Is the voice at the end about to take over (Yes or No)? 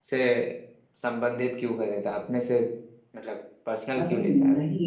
Yes